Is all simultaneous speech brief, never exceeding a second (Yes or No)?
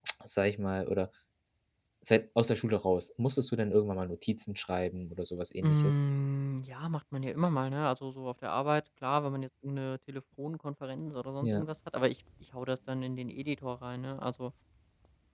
Yes